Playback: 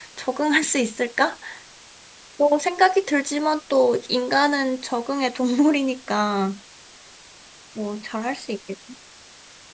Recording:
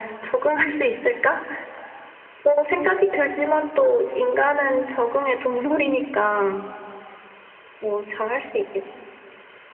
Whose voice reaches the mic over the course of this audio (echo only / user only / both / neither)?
echo only